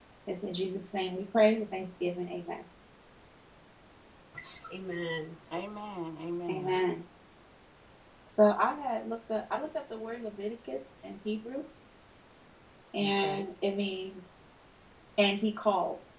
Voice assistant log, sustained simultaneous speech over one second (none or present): none